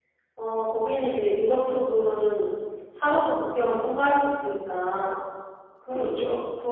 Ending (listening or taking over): listening